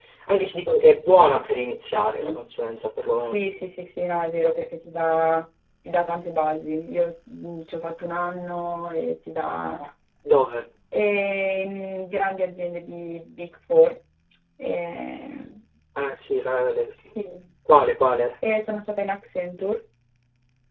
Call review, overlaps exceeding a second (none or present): none